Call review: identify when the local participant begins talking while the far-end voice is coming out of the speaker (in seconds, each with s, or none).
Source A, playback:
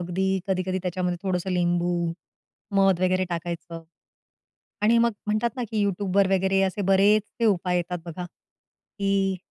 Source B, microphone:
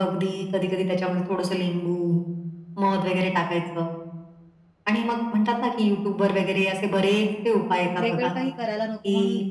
8.0 s